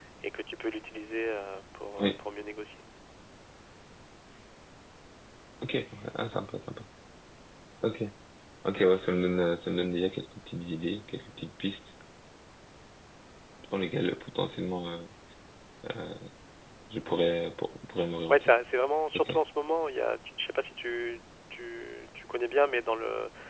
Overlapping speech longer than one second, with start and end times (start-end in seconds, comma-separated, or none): none